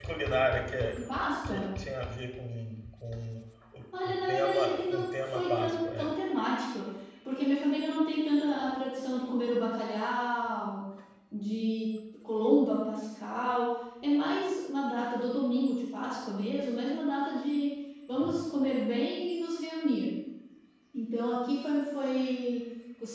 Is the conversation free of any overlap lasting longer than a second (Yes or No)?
No